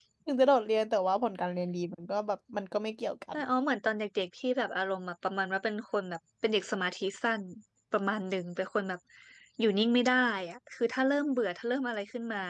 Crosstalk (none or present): none